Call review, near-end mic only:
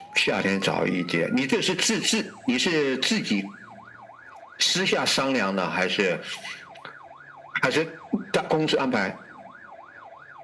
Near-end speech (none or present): none